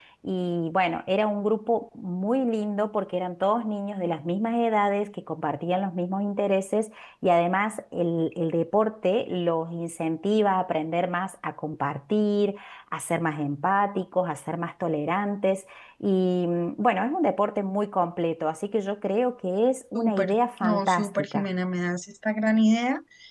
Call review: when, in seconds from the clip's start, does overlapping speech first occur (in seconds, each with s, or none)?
19.9 s